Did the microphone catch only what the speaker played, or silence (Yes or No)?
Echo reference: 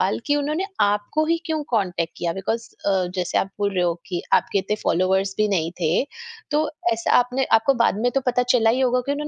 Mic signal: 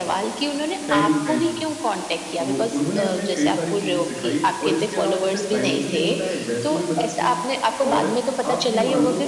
No